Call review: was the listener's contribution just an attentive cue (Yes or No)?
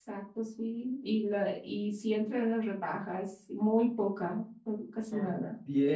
No